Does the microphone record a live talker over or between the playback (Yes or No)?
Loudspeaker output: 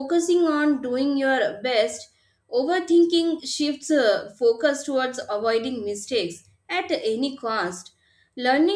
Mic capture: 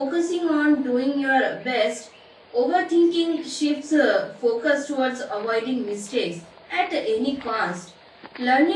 No